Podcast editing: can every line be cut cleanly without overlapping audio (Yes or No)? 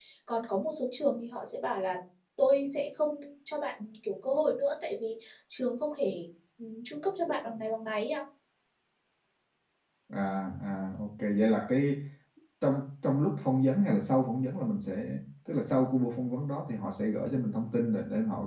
Yes